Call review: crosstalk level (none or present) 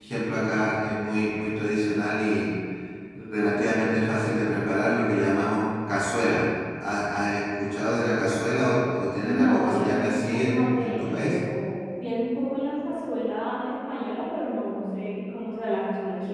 present